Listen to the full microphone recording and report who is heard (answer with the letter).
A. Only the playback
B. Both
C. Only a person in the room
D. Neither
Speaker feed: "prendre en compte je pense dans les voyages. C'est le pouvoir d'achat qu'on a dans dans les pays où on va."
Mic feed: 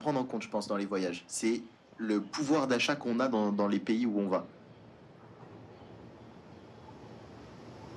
A